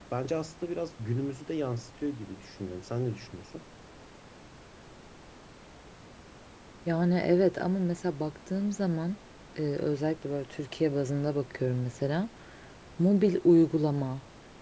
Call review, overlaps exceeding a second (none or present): none